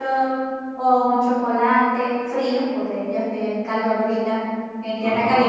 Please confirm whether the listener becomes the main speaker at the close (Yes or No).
No